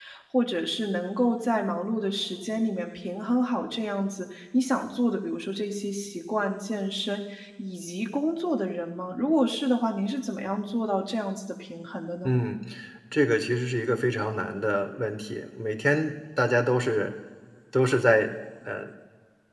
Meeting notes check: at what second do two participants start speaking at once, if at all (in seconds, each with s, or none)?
none